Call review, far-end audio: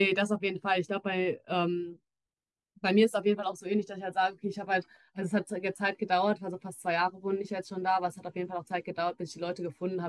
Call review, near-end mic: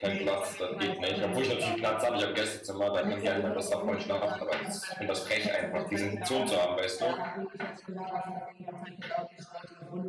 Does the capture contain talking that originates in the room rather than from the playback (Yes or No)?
Yes